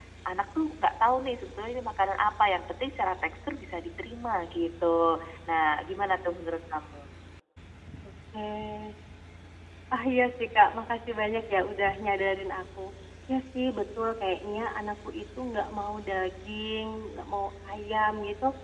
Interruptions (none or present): none